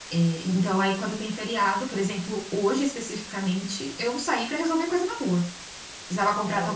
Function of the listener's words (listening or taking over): listening